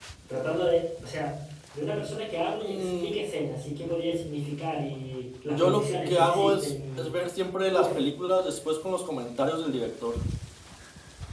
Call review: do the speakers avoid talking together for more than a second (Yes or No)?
No